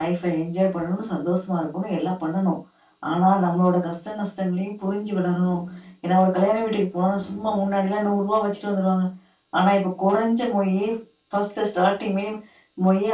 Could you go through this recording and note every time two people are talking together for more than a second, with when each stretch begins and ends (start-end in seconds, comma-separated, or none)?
none